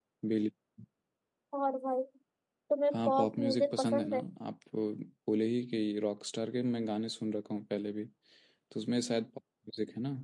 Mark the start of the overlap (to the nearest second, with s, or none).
3 s